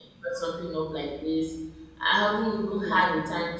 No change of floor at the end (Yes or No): Yes